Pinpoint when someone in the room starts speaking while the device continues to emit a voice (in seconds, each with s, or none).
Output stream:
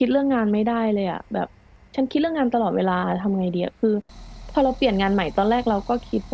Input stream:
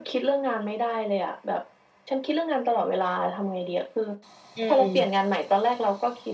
4.5 s